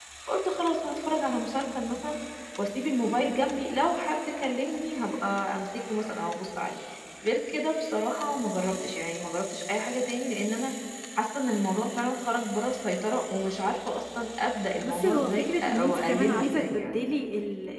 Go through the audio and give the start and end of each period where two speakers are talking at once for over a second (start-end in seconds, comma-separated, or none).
14.8-16.9